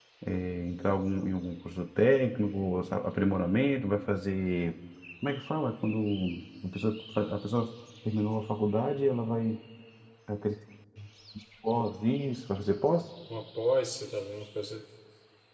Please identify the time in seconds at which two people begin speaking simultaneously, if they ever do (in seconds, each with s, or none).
none